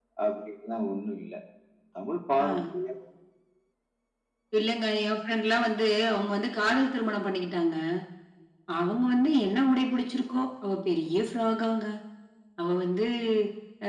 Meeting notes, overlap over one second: none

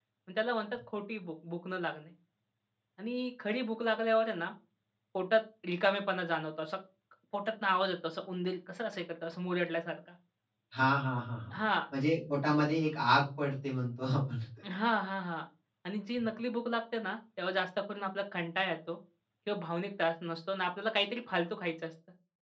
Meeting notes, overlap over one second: none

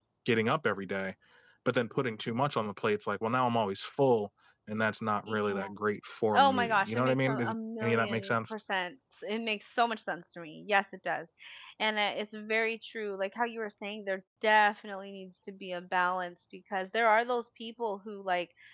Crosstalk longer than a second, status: present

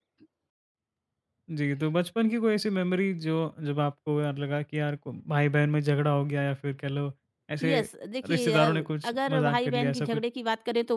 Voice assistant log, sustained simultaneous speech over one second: present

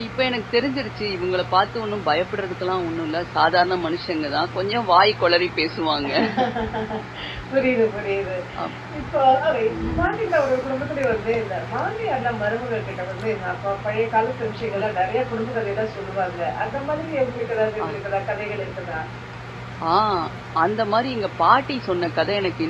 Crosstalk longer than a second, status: none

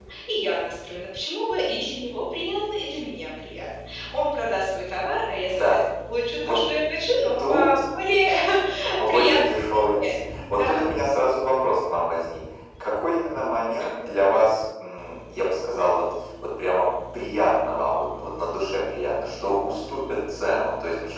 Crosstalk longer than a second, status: present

